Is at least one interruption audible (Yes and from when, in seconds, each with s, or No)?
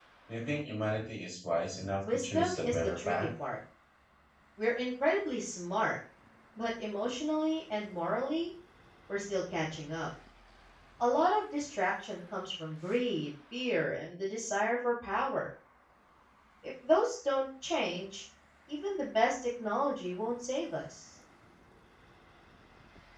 Yes, from 2.0 s